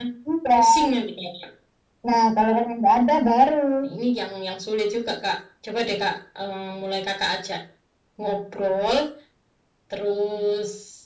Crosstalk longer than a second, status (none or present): none